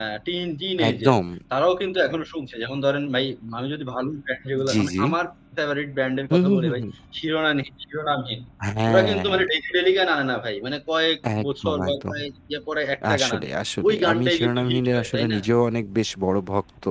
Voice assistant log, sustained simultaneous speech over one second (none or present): present